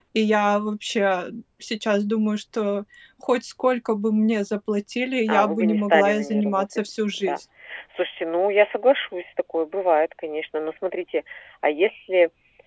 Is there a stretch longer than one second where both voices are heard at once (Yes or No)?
Yes